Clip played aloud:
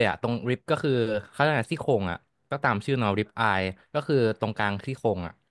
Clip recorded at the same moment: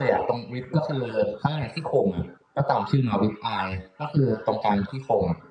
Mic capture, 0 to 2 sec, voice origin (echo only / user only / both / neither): echo only